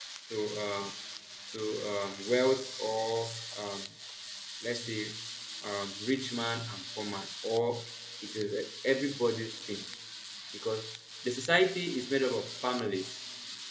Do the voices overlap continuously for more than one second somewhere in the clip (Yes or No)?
No